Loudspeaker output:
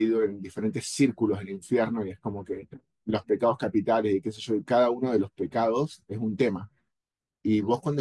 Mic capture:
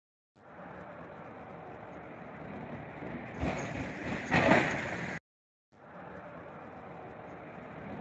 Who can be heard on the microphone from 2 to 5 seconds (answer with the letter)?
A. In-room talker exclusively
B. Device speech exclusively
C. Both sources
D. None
D